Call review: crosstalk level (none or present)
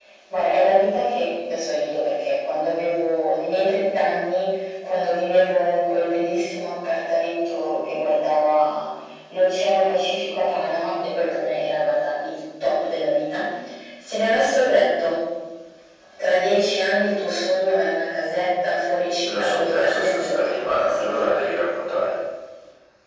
present